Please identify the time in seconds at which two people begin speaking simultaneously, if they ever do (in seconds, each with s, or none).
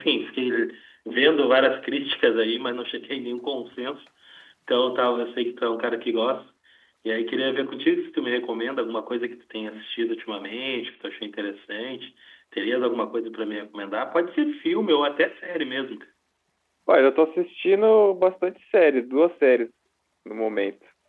none